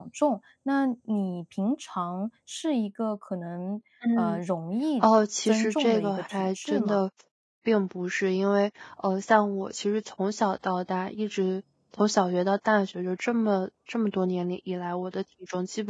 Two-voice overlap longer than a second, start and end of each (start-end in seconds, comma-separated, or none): 5.4-7.0